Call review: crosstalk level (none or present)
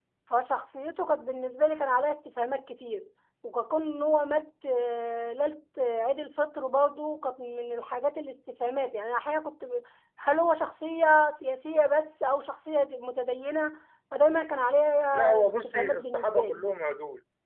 present